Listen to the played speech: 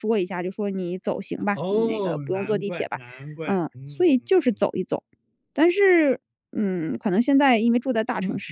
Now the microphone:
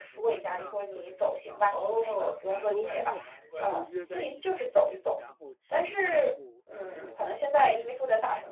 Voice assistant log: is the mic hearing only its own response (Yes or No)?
No